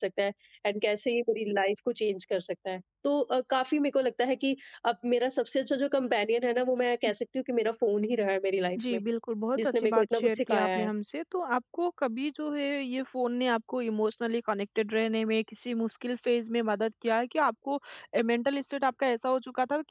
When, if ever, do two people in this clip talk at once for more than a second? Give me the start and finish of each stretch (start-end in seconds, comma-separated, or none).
9.6-10.9